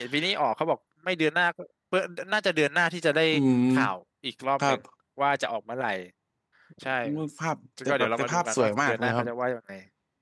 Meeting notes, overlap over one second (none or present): present